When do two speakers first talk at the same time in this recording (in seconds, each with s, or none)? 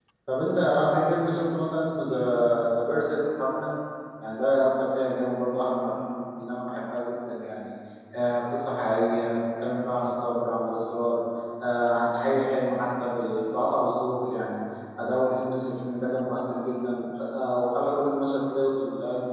none